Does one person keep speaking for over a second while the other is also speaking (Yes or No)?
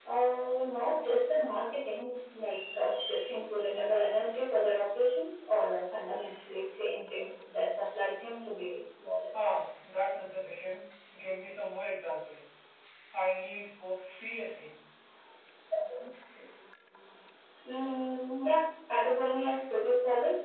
No